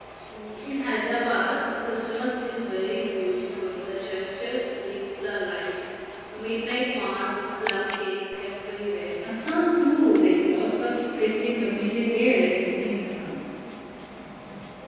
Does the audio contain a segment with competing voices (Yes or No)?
No